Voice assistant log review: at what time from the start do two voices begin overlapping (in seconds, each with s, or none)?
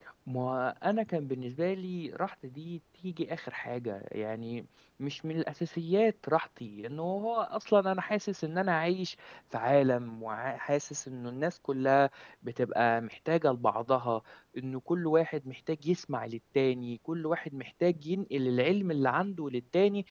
none